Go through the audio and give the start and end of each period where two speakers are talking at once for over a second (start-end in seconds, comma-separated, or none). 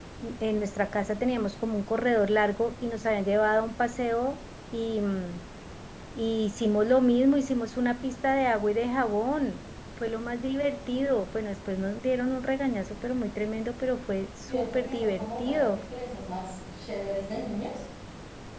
14.5-15.8